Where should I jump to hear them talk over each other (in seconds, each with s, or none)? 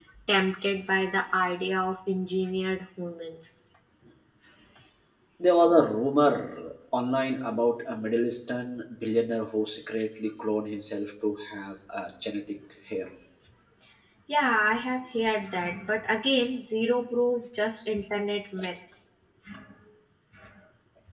none